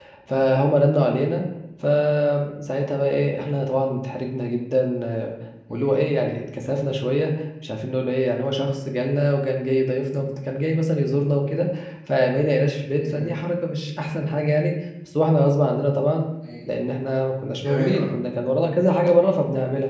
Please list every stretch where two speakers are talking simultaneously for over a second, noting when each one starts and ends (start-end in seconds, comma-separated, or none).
none